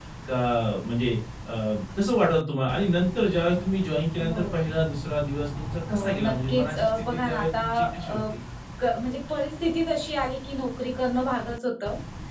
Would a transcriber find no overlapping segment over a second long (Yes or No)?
No